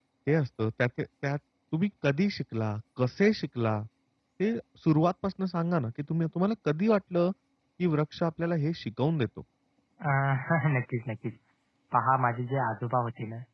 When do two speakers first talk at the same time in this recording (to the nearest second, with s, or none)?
none